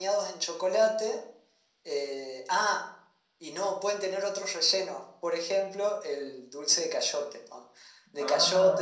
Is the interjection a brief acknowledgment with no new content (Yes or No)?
Yes